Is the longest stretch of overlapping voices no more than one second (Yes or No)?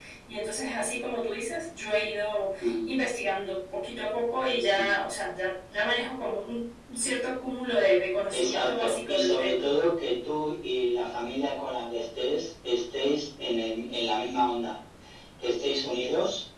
No